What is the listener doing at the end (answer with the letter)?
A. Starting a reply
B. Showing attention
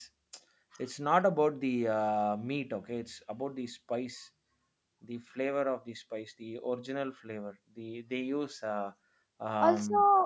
A